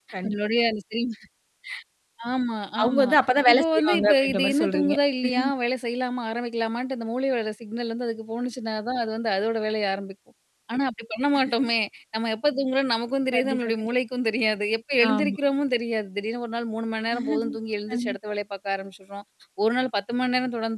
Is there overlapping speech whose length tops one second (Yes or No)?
Yes